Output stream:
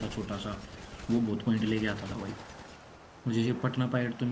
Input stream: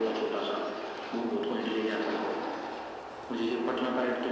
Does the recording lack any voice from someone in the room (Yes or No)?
Yes